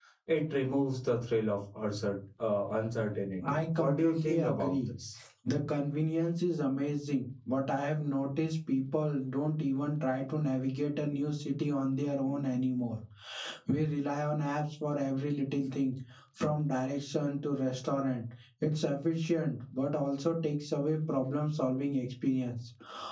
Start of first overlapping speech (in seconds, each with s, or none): 3.4 s